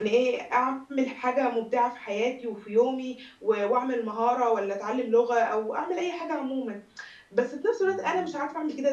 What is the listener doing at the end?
listening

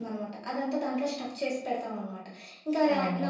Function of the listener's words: listening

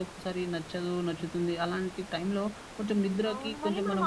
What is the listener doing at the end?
taking over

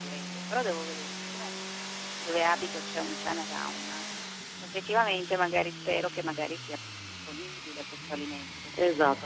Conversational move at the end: taking over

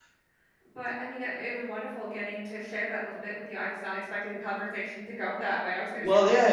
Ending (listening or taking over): taking over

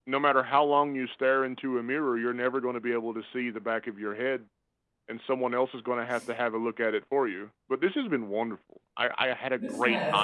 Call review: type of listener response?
taking over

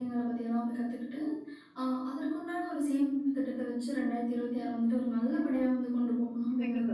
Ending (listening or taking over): taking over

